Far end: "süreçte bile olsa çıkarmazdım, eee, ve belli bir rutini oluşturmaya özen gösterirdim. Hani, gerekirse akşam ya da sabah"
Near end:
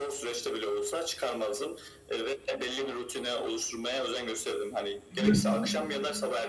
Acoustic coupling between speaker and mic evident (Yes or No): Yes